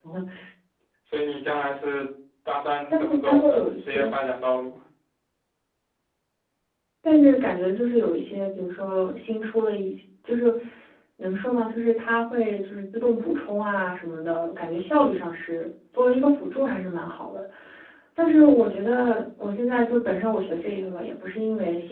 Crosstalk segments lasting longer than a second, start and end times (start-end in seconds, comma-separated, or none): 2.9-4.1